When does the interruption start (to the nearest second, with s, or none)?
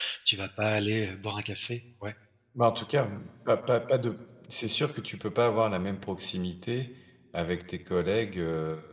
none